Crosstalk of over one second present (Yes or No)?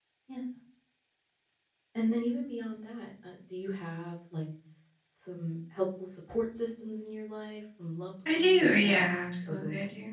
Yes